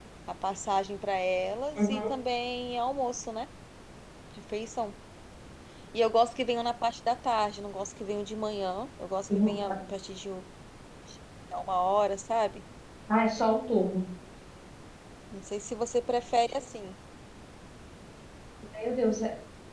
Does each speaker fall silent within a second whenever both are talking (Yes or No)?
Yes